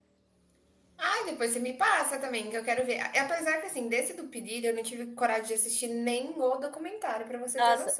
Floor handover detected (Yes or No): Yes